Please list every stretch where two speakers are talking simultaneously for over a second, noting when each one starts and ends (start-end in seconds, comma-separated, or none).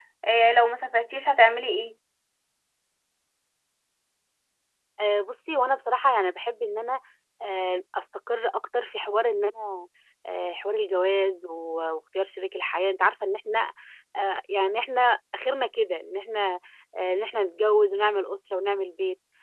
none